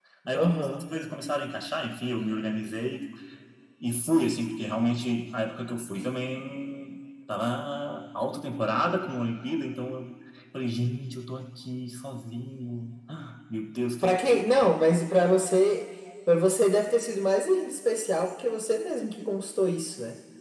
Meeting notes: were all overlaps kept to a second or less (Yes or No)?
Yes